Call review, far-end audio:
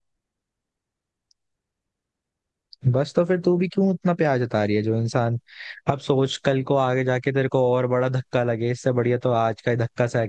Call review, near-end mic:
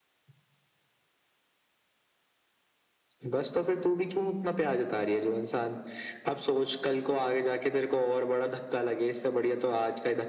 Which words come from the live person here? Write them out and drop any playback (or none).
none